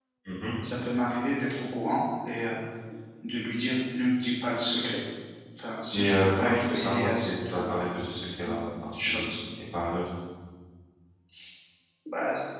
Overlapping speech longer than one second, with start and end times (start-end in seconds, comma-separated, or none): 5.9-7.8